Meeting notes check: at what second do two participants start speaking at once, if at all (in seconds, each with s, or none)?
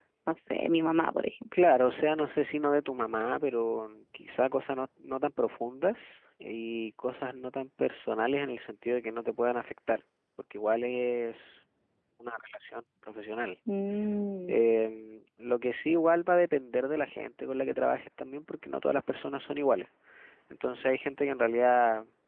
none